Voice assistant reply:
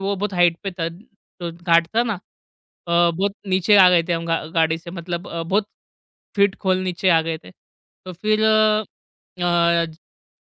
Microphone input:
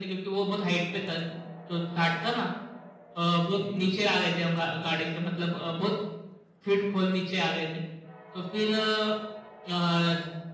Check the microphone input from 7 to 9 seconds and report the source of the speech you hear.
echo only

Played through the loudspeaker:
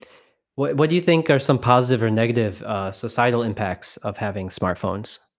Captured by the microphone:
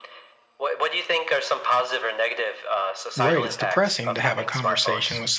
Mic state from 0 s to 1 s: echo only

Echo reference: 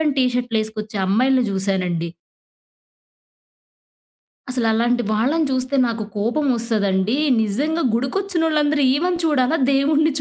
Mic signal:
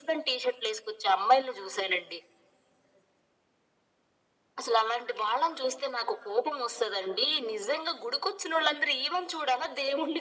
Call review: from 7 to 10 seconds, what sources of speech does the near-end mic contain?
echo only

